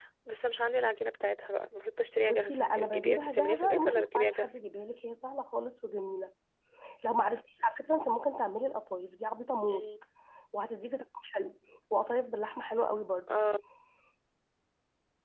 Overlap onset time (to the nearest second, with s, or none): 2 s